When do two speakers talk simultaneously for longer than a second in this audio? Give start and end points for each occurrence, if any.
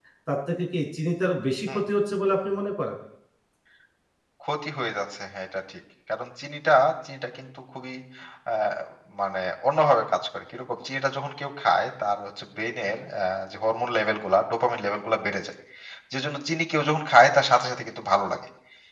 none

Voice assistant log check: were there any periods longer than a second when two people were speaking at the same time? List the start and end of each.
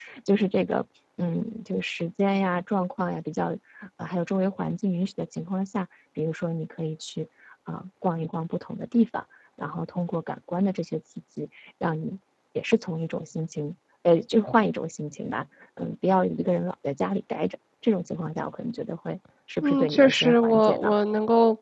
19.6-20.9

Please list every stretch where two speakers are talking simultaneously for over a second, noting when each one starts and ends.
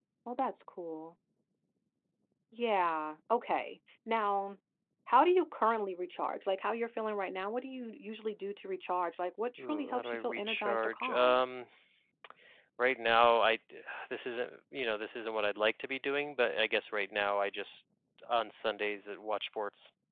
9.6-11.4

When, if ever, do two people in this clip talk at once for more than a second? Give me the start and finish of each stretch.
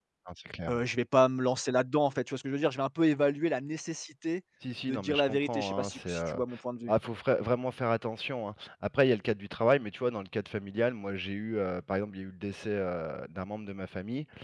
4.9-6.3

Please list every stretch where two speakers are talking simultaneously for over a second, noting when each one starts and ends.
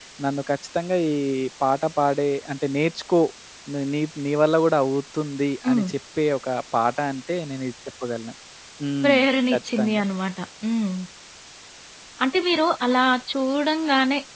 none

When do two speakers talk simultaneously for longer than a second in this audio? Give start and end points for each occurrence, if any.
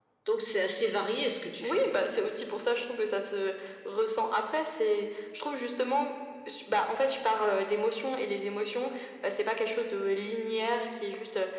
none

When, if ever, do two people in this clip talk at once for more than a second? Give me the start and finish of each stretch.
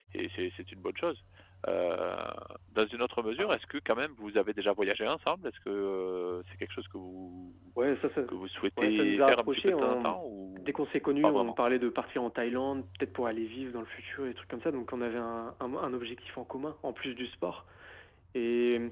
8.8-10.1

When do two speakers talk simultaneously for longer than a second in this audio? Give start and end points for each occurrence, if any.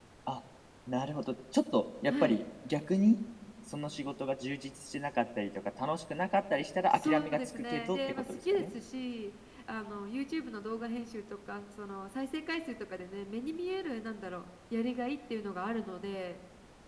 6.9-8.7

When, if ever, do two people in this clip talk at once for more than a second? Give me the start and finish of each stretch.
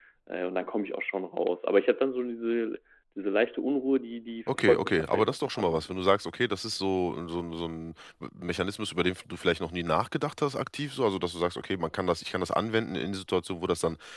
4.5-6.0

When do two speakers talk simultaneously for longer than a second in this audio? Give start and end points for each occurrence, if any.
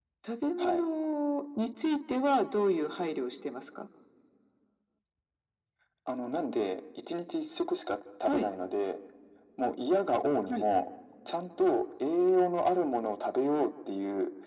none

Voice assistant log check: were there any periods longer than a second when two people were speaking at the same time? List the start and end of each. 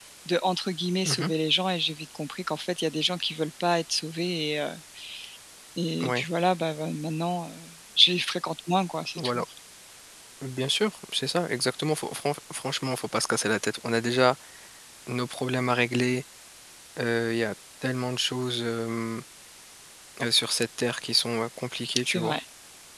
none

